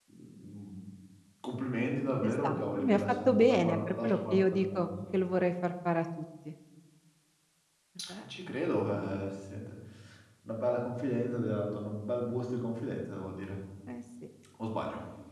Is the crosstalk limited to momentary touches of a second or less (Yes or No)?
No